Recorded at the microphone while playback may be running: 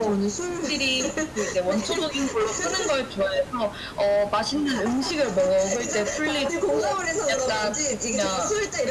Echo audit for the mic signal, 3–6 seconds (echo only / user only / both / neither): echo only